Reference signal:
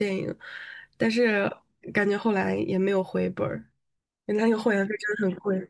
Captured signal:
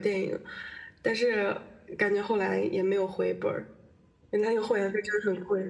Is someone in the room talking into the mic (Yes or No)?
No